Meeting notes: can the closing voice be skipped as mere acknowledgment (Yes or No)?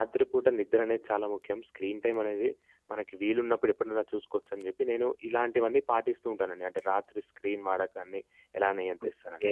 No